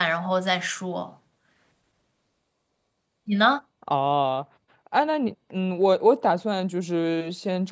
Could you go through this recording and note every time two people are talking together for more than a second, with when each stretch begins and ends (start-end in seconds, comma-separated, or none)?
none